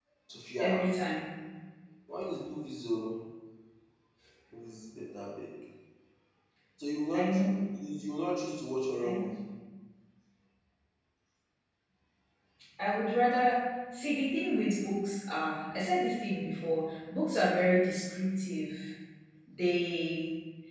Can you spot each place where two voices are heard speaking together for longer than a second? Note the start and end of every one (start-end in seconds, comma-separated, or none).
none